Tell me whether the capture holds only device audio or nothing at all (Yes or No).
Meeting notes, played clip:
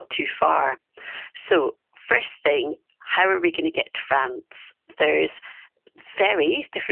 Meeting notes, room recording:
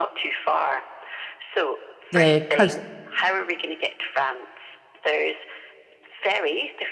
No